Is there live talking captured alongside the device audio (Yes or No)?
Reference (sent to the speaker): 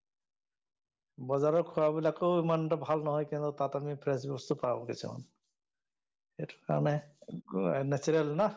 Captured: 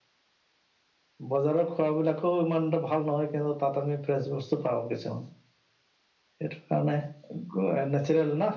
No